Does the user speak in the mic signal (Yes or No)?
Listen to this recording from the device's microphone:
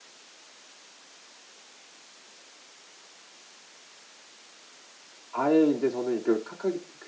Yes